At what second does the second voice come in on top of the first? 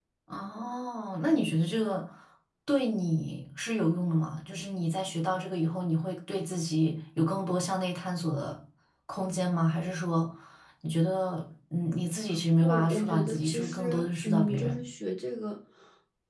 12.6 s

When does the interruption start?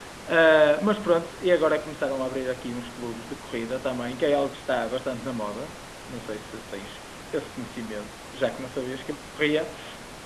none

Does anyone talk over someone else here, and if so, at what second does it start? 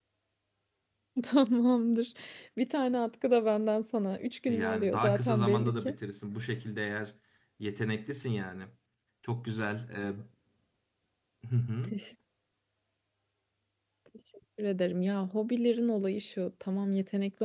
4.5 s

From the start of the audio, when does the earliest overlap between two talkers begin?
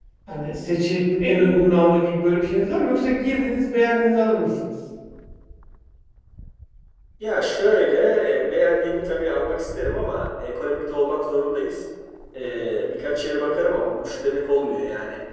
none

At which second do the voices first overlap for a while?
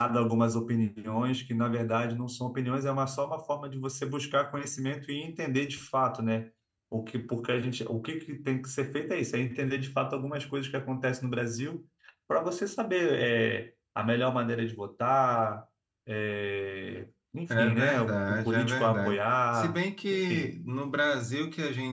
17.5 s

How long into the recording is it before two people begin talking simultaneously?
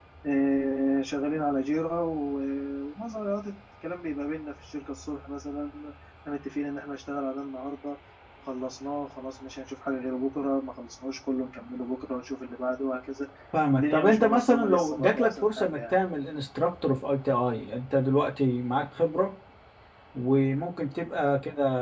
13.7 s

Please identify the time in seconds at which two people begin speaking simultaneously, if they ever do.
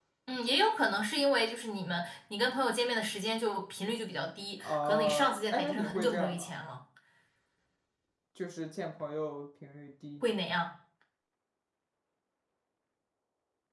4.6 s

